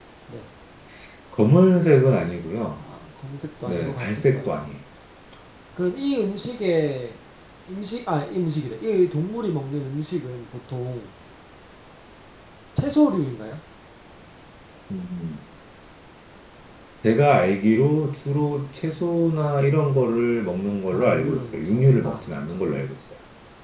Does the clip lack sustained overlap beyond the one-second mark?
No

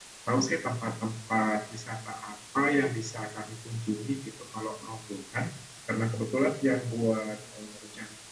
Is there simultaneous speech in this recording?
No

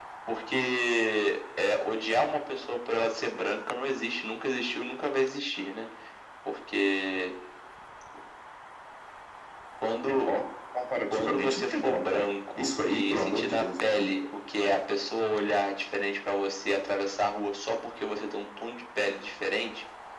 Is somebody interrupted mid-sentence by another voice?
Yes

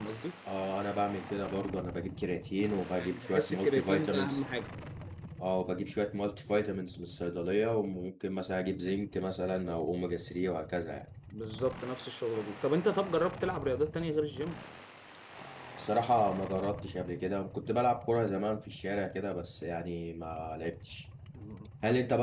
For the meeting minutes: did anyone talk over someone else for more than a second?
Yes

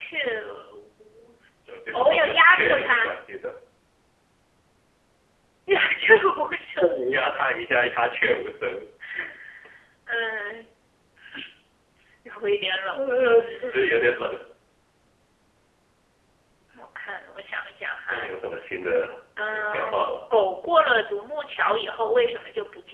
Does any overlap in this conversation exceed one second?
Yes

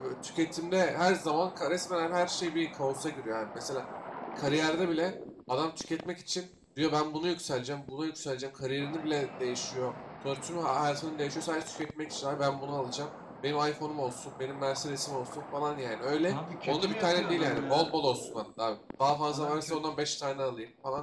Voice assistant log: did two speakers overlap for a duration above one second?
Yes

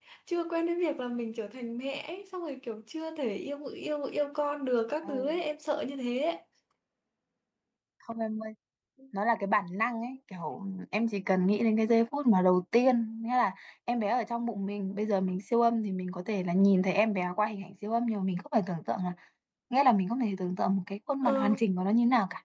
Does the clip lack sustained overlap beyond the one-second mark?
Yes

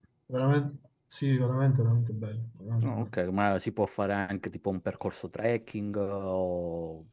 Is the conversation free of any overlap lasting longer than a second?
Yes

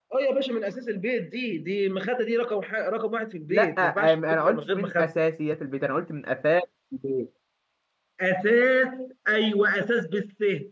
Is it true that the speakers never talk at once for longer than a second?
No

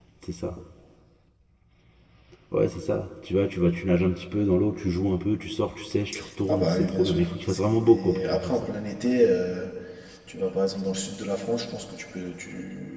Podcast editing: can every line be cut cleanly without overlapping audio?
No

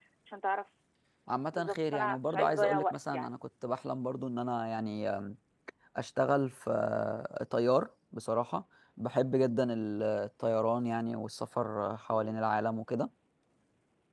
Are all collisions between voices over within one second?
No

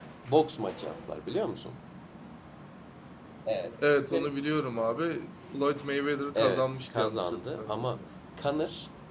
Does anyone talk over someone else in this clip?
Yes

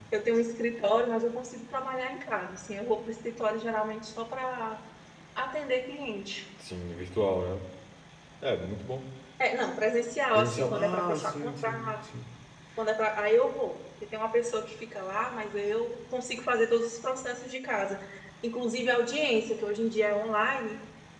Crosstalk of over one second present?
Yes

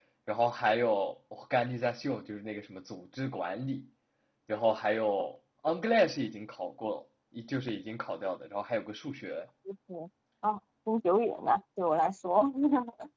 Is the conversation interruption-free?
Yes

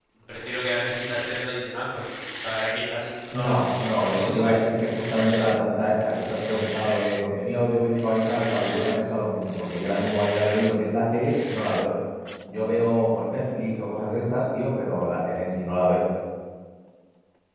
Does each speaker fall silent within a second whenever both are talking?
No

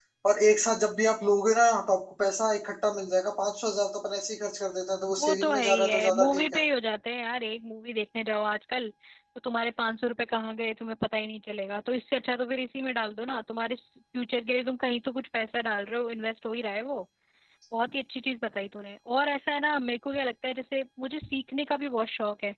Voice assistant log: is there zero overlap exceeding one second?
No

